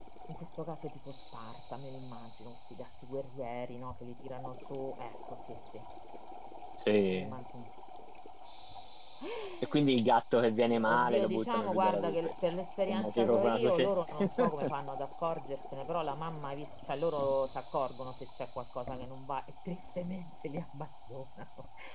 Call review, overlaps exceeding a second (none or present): present